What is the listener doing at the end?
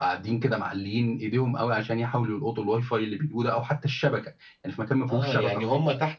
taking over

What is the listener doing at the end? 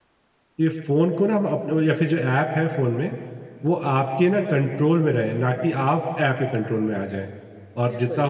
listening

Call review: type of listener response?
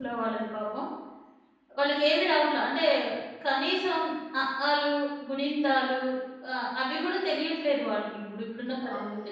taking over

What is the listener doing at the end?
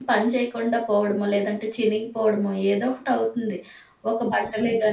listening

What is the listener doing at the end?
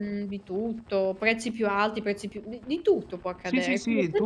taking over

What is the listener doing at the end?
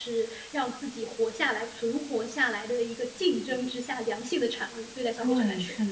taking over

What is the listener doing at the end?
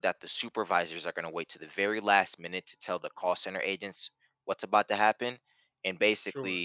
listening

